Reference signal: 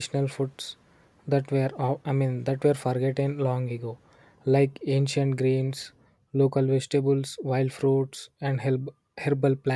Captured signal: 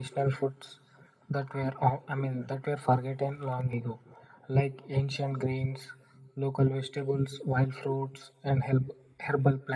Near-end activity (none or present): none